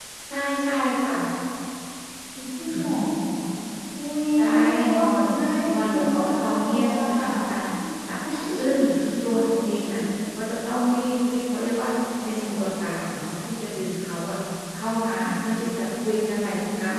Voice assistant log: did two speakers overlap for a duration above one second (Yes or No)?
Yes